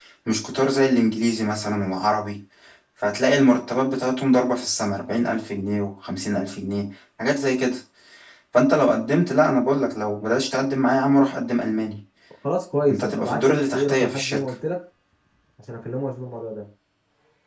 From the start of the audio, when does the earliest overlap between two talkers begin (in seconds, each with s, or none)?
12.9 s